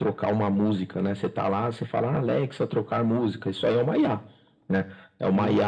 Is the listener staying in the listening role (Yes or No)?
Yes